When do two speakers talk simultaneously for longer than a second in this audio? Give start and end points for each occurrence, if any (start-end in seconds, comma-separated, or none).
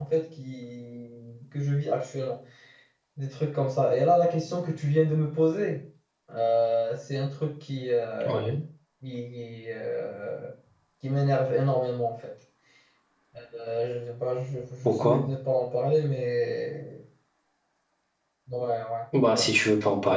none